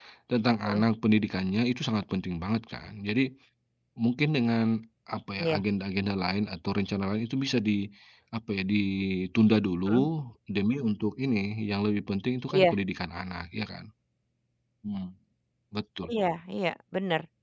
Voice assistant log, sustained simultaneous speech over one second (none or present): none